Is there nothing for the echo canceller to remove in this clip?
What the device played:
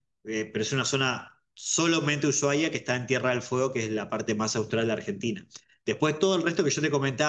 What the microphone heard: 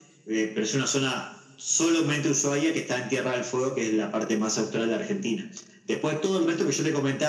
No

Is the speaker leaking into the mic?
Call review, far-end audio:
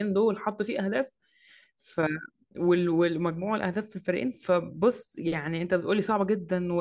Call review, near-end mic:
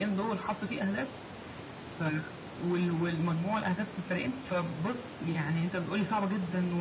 Yes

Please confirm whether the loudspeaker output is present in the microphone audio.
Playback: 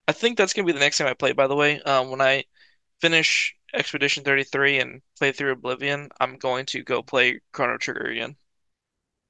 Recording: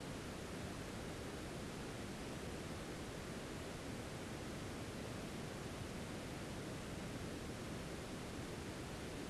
No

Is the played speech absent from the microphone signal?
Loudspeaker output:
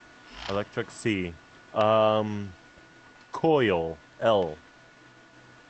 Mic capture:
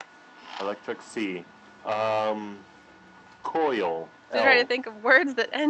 No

